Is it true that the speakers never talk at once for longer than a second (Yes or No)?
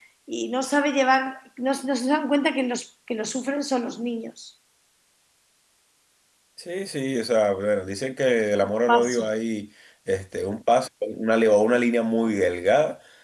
Yes